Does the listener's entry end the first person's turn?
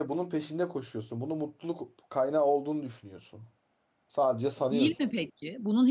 Yes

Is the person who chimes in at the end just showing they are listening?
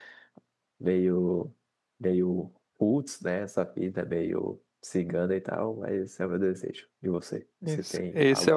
No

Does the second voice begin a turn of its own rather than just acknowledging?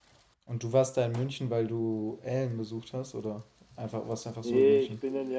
Yes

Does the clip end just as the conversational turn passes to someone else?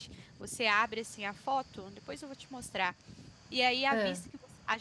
No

